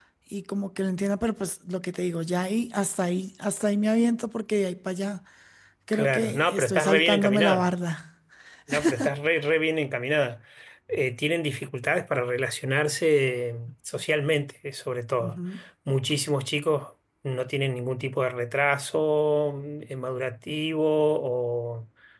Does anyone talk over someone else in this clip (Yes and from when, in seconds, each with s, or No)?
Yes, from 5.9 s